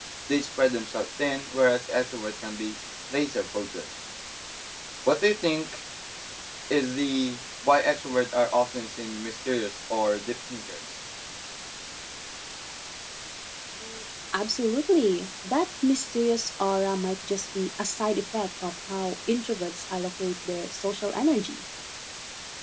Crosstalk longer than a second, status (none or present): none